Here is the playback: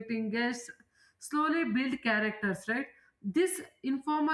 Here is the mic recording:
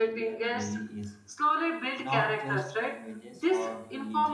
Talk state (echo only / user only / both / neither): both